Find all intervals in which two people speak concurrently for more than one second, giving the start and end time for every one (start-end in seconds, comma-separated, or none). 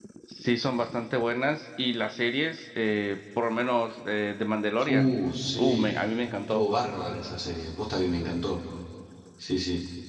none